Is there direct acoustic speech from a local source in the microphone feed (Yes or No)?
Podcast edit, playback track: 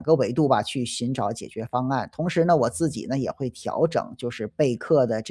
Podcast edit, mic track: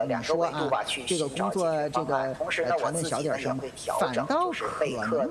Yes